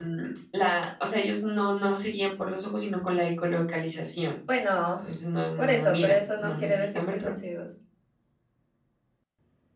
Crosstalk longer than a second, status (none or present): present